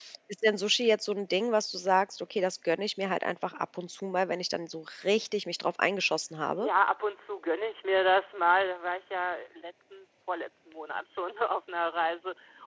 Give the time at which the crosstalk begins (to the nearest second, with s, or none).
none